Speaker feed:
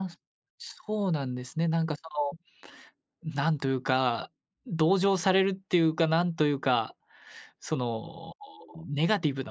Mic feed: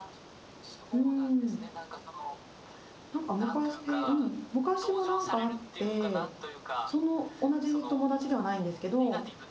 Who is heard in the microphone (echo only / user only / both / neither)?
both